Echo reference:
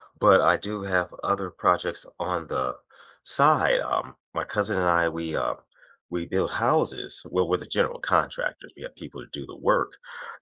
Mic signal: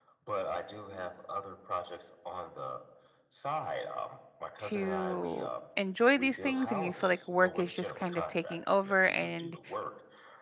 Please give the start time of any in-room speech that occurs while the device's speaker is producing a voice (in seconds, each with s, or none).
4.6 s